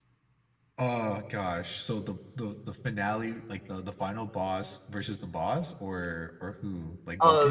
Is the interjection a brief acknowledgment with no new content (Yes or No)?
No